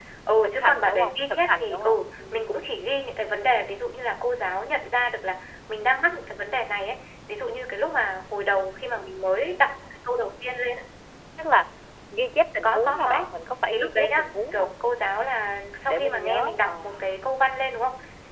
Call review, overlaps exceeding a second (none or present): present